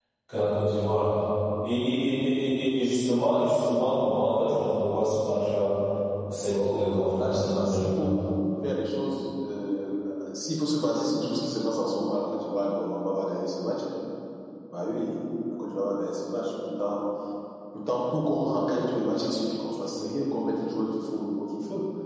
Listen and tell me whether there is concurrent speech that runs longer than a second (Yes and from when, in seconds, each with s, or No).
Yes, from 6.4 s